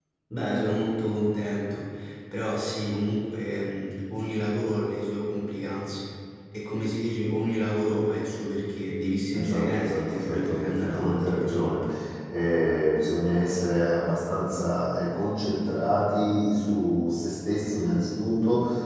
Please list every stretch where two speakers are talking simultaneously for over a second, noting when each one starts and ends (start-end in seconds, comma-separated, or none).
9.3-11.7